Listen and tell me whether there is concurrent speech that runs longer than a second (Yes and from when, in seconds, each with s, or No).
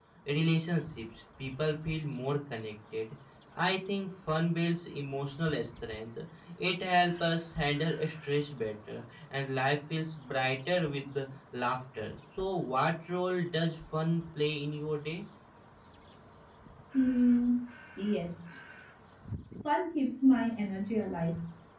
No